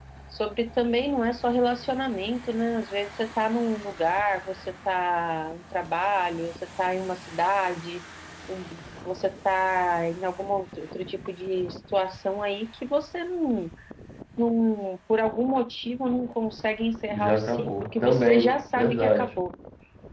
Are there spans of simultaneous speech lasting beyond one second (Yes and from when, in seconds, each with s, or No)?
Yes, from 17.1 s